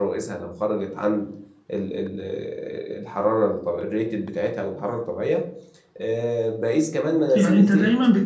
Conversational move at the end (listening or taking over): taking over